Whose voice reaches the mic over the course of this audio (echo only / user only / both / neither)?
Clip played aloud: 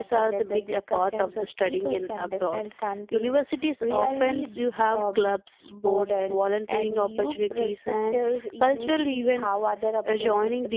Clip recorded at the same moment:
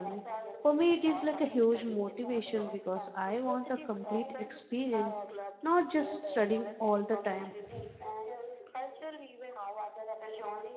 both